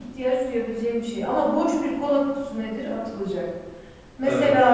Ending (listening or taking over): listening